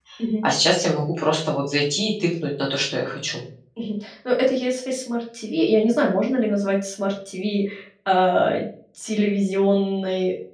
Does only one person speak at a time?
Yes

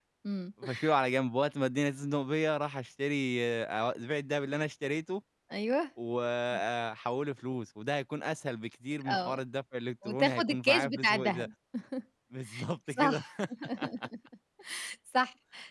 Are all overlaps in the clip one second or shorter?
No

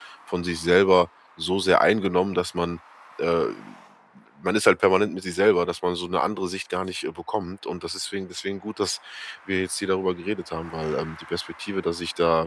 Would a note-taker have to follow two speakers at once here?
No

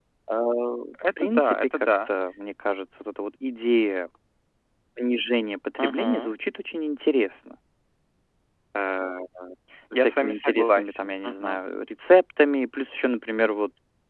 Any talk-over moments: Yes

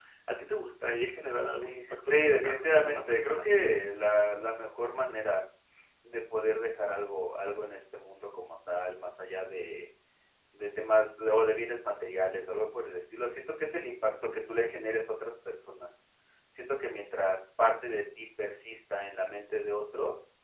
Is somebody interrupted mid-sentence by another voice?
Yes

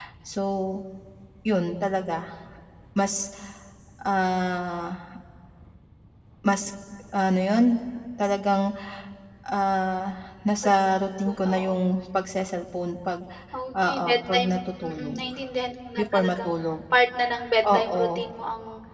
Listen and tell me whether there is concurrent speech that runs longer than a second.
Yes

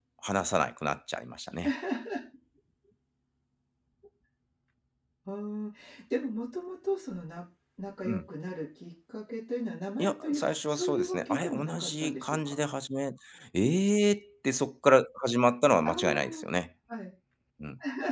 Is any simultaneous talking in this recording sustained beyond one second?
Yes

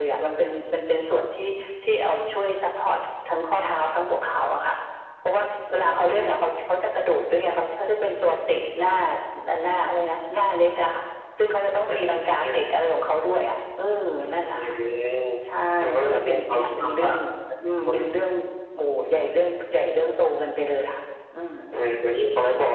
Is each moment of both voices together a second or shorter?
No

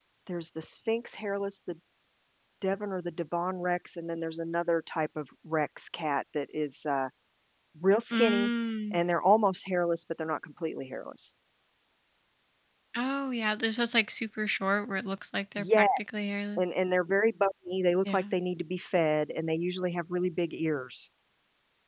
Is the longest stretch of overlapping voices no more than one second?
Yes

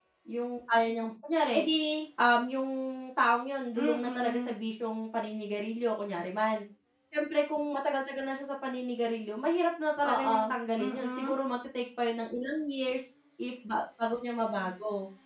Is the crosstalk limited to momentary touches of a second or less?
No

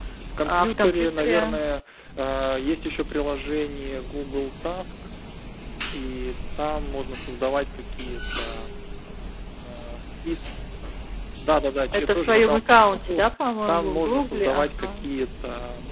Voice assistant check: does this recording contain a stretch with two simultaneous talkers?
Yes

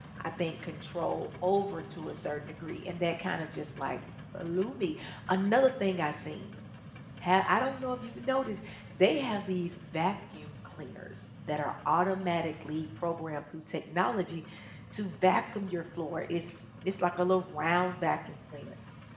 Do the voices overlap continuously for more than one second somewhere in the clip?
No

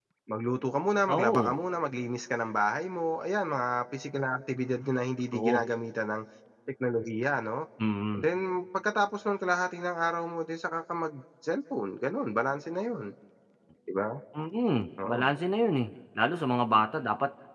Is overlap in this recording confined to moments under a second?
Yes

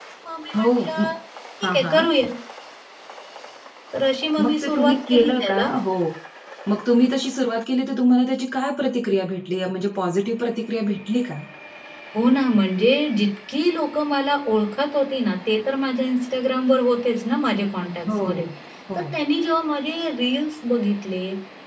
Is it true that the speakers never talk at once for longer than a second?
No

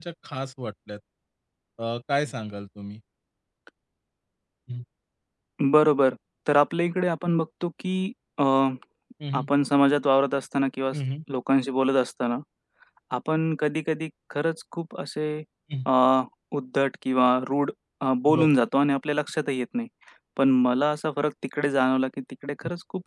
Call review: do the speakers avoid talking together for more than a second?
Yes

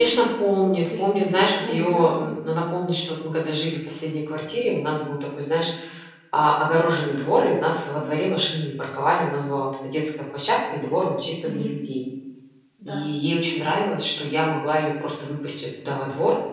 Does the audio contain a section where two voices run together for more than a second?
Yes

